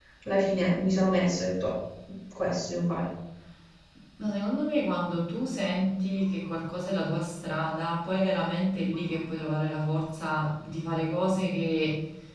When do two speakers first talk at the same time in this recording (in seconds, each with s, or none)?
none